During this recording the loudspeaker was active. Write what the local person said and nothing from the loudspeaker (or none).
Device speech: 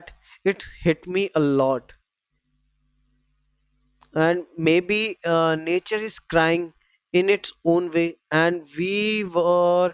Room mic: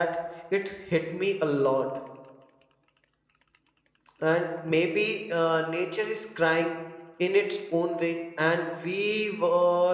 none